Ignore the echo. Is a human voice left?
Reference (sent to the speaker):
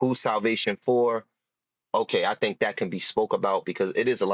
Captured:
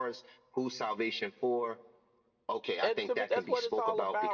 Yes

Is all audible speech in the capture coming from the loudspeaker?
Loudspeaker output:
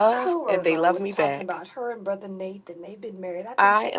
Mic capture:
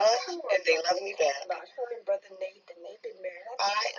Yes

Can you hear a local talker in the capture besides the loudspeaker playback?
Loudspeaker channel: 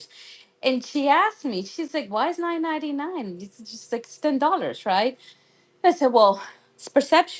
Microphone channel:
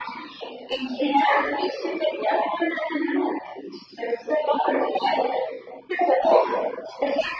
No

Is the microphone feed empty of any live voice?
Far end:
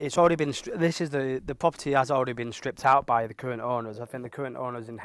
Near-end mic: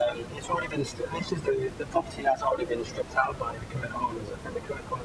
Yes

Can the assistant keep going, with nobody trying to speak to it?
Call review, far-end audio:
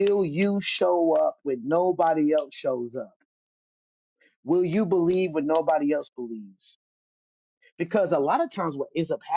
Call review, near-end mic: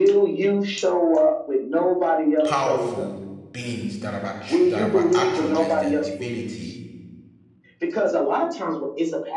No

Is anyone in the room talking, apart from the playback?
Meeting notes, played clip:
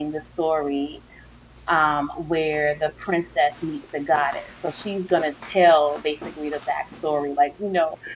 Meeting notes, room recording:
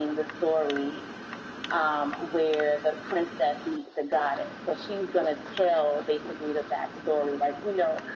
No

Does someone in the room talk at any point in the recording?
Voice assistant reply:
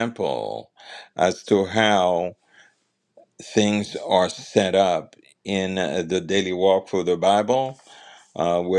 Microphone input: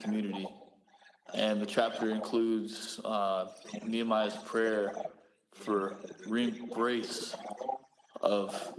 Yes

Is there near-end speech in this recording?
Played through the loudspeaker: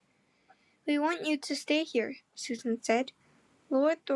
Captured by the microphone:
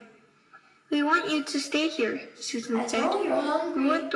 Yes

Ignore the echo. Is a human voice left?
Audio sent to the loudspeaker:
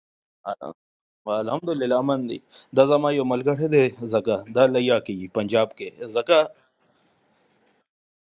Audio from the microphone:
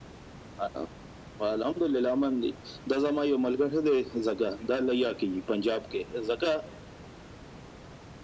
No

